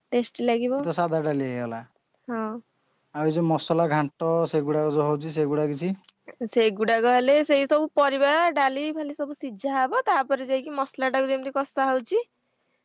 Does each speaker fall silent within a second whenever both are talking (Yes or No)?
Yes